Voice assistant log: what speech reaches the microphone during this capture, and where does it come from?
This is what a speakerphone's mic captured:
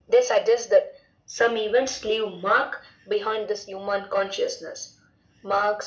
echo only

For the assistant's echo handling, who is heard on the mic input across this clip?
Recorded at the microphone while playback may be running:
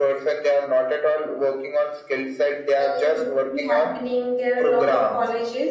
both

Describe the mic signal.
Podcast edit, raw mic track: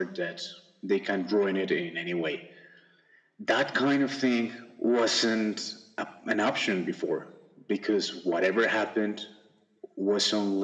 echo only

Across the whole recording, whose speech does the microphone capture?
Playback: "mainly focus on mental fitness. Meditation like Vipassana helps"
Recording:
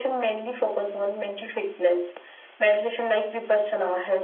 echo only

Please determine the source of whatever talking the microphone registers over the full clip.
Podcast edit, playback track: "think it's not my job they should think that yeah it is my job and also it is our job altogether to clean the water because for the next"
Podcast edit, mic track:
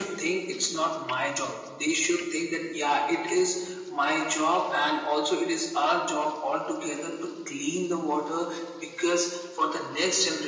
echo only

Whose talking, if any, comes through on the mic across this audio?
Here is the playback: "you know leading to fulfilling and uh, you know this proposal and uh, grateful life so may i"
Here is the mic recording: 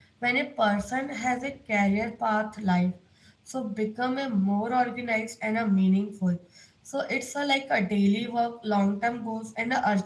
user only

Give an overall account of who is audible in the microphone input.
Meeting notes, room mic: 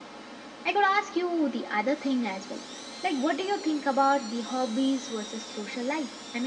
echo only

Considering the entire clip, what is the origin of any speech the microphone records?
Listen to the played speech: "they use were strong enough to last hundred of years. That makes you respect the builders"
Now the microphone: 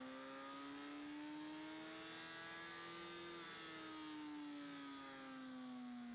neither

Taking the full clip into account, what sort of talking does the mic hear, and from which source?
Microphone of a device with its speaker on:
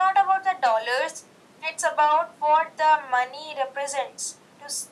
echo only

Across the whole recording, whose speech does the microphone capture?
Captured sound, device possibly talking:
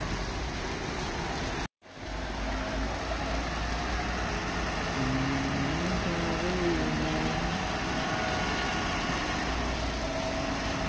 neither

